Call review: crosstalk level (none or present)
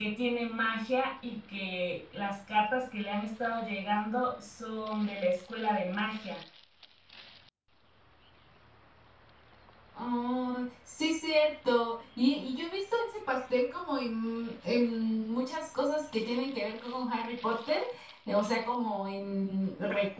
none